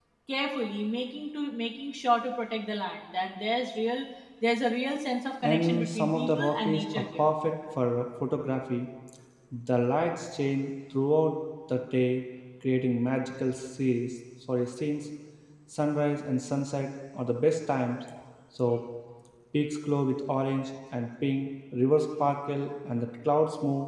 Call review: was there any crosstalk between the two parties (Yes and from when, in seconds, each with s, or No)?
Yes, from 5.4 s